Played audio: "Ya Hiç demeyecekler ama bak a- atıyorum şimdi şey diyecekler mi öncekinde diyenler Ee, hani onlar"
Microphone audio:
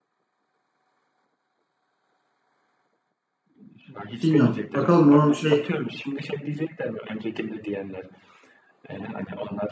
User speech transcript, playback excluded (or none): bilmiyorum. Bakalım onun şey